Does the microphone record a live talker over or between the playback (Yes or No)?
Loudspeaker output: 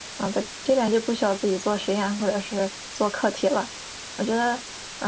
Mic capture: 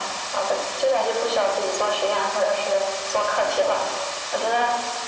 No